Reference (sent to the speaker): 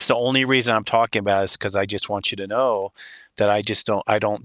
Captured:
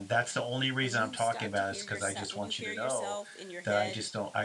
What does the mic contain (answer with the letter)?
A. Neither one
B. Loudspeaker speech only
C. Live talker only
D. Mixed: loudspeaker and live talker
D